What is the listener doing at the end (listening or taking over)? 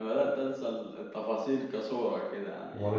listening